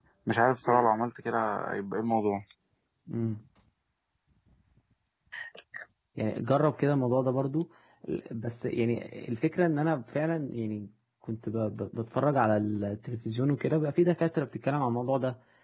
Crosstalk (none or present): none